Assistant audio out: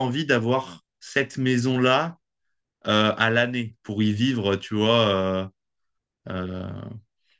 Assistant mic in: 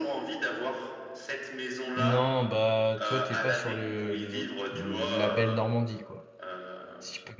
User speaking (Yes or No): Yes